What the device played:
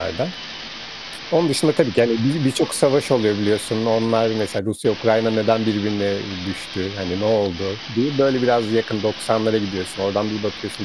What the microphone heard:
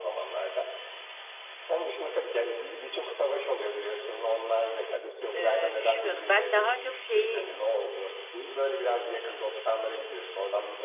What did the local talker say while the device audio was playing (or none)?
eee, düşünmüyordum. Ben daha çok şeyi,